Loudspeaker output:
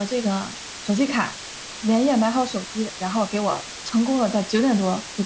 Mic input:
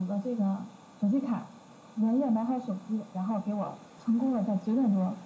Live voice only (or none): none